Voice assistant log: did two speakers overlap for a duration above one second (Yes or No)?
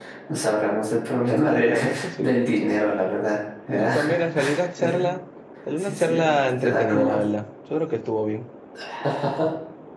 Yes